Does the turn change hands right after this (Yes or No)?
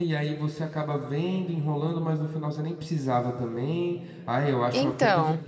No